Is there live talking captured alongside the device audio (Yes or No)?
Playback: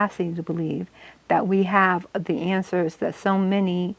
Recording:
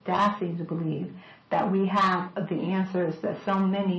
No